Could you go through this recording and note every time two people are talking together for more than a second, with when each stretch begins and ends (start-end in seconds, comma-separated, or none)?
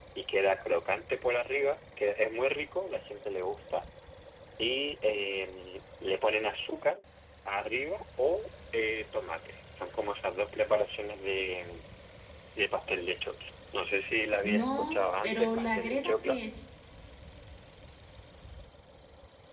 14.4-16.4